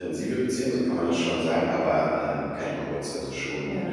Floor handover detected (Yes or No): Yes